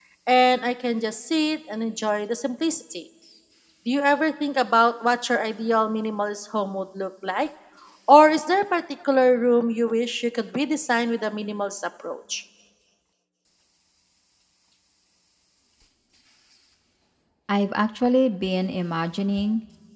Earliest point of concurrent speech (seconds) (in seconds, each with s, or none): none